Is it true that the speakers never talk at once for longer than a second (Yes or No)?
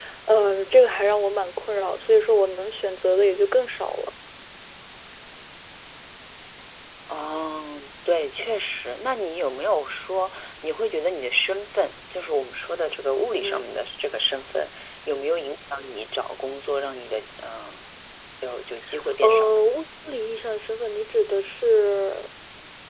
Yes